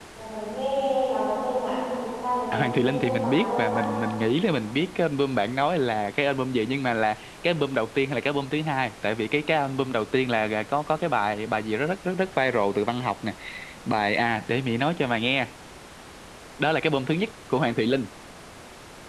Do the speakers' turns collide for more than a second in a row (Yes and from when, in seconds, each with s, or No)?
Yes, from 2.5 s